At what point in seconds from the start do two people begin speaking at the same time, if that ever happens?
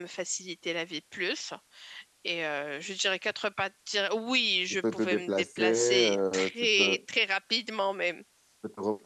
5 s

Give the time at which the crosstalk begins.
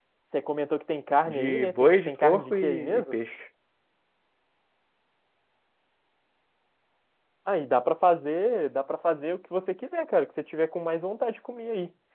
1 s

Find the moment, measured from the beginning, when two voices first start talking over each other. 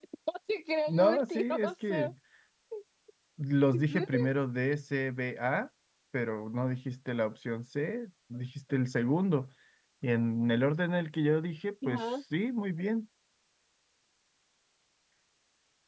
1 s

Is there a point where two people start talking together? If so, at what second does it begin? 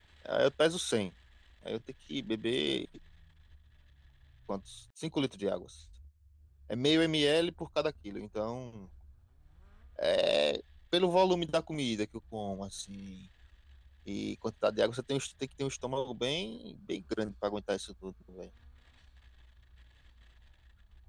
none

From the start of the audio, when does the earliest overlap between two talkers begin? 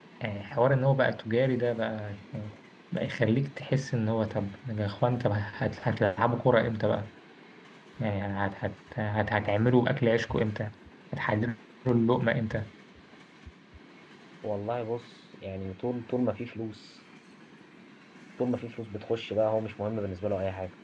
none

